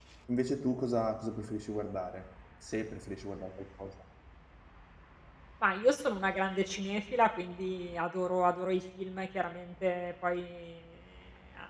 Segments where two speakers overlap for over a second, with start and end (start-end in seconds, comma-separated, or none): none